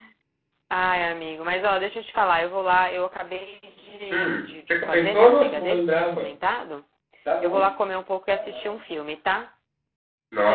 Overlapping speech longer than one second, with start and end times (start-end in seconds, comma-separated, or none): 4.1-6.3